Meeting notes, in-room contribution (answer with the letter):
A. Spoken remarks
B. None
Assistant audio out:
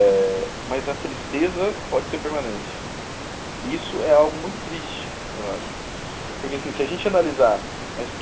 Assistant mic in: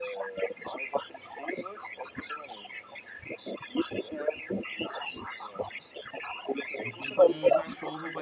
A